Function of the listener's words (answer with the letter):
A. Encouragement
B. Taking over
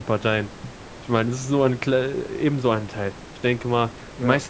A